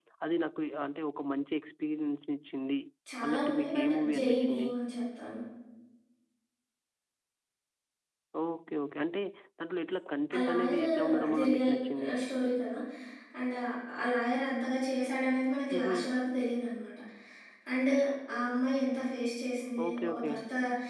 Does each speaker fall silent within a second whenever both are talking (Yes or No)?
No